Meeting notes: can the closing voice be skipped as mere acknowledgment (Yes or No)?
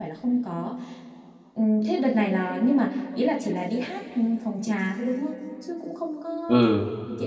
No